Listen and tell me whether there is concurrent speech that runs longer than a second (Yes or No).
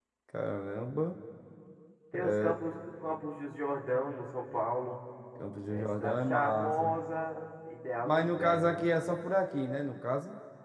Yes